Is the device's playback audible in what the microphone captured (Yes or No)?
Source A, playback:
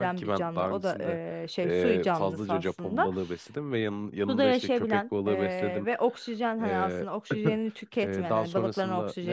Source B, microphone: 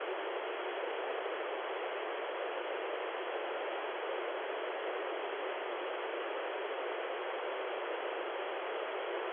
No